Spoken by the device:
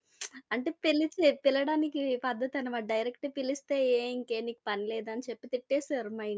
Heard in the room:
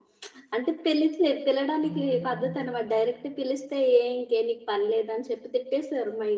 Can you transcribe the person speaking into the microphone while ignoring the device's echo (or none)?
హ్మ్.